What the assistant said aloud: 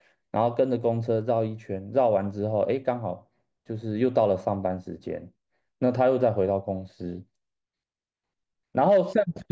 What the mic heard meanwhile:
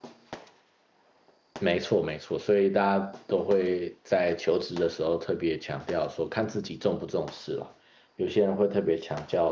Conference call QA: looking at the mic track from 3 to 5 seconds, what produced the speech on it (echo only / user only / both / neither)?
user only